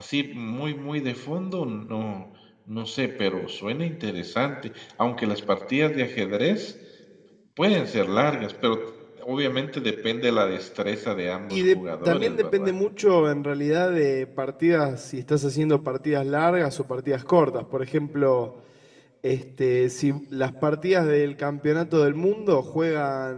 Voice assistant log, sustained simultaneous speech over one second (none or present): present